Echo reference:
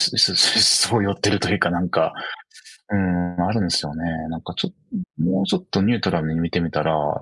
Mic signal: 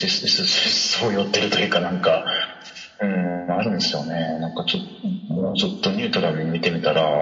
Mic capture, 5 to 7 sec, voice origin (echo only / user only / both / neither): echo only